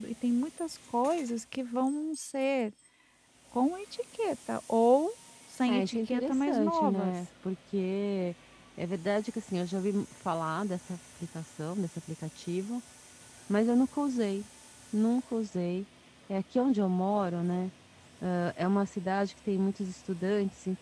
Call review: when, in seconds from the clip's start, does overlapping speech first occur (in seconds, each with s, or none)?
5.7 s